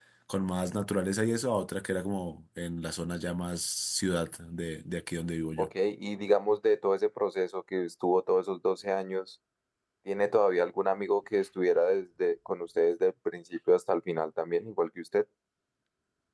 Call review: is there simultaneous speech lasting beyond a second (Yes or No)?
No